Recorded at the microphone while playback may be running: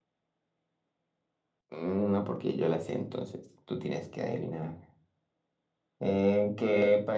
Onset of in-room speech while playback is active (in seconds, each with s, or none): none